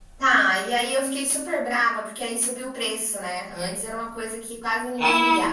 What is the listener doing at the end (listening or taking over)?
taking over